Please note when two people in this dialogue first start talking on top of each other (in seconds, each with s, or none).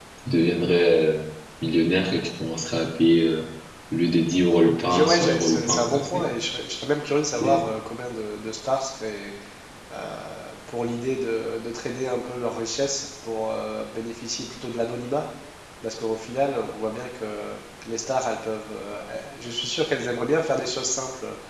4.9 s